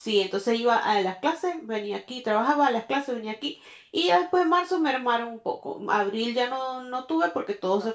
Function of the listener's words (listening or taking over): listening